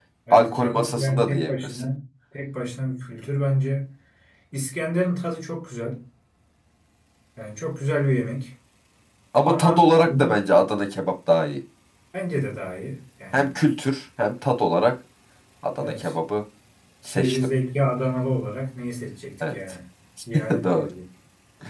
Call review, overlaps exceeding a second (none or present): present